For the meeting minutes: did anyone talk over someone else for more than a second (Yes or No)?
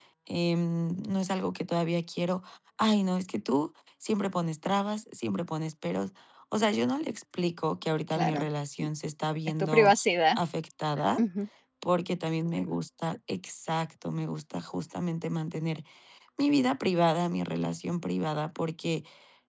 No